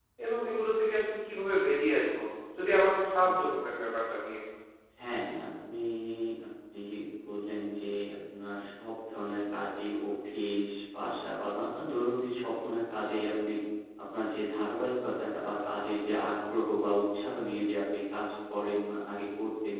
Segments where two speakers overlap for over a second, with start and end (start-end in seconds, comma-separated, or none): none